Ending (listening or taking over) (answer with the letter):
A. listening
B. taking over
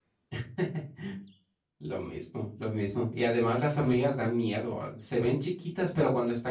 A